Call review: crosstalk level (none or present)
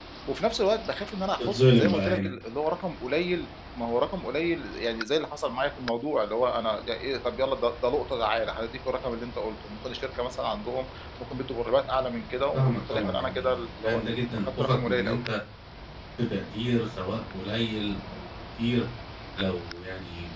present